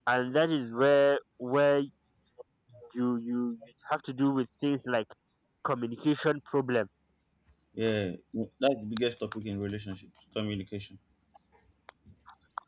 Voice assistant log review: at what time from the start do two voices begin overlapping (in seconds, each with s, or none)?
none